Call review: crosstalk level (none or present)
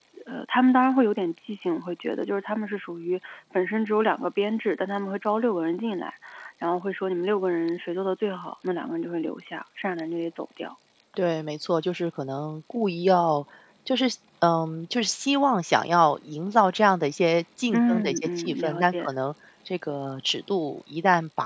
present